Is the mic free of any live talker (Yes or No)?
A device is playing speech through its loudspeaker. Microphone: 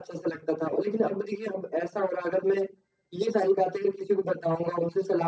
Yes